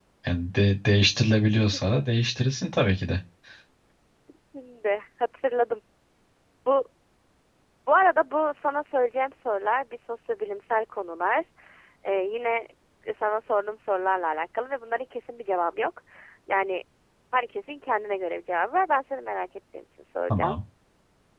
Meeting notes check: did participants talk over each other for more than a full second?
No

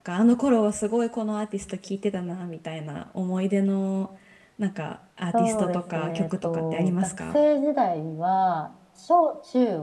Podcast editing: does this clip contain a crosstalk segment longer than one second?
Yes, from 5.3 s

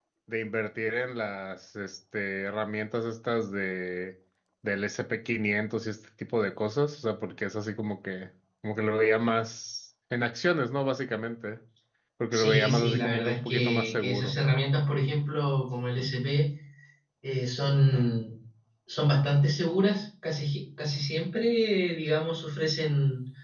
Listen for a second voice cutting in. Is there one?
Yes, from 12.3 s

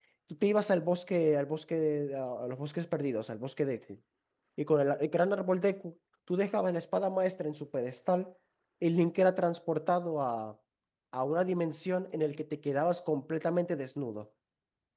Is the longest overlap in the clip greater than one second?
No

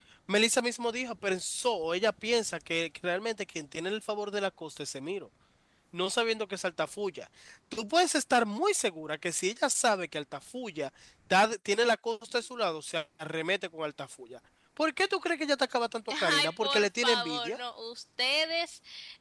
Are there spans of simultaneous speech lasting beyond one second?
Yes, from 16.1 s

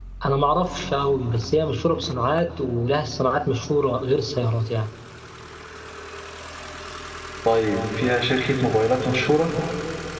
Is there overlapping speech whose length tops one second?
No

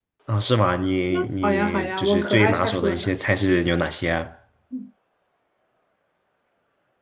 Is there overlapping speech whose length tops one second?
Yes, from 1.1 s

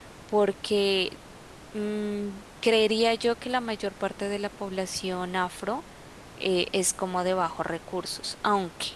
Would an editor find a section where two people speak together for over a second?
No

